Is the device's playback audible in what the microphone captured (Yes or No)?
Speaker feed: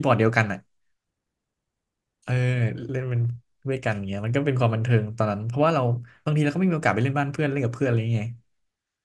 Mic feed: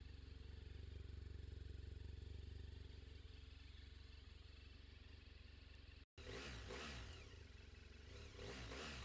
No